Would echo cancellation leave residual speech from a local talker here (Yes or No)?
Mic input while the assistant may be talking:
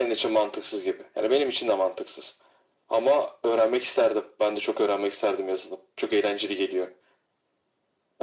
No